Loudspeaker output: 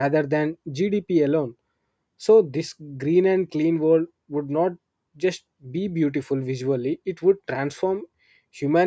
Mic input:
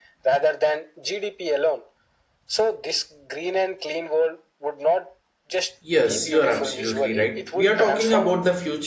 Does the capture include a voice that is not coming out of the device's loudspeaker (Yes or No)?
Yes